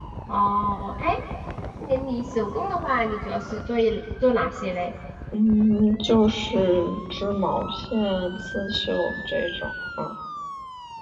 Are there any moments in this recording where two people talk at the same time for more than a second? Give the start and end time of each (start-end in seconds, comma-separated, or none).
none